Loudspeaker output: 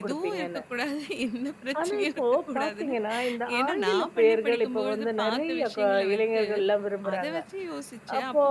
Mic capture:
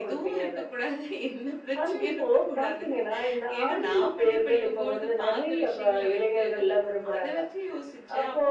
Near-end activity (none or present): none